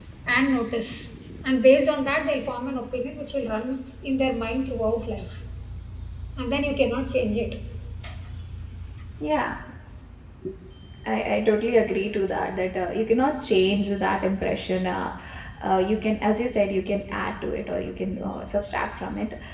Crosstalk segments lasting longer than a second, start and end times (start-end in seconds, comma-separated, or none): none